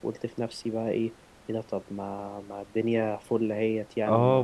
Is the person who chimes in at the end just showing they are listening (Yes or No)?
No